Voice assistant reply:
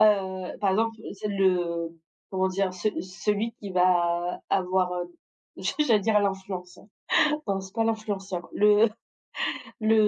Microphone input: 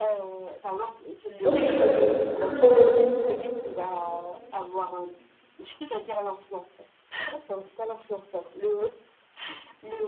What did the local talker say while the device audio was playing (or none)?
Non, je t'ai pas c c'est ça le problème.